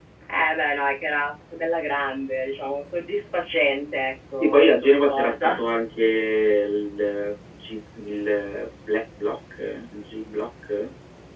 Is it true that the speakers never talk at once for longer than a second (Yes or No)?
No